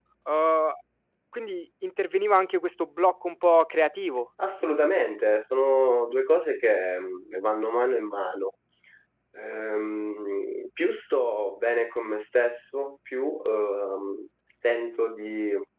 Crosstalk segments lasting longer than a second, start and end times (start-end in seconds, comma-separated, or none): none